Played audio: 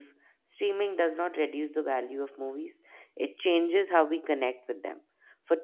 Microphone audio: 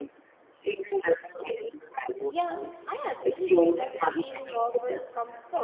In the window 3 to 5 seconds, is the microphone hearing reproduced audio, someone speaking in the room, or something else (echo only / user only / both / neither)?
both